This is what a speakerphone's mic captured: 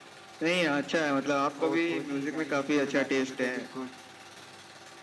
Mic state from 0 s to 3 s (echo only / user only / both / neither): both